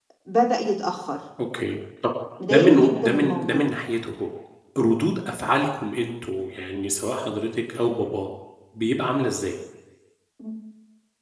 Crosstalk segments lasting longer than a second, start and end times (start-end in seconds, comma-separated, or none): 2.5-3.7